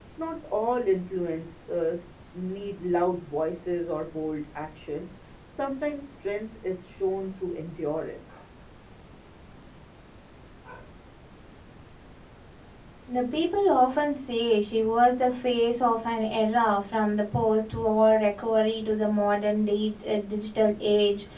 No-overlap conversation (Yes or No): Yes